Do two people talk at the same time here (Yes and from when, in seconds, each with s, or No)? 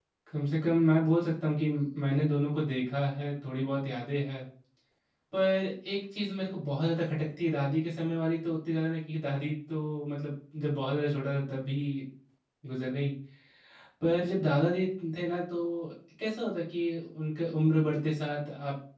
No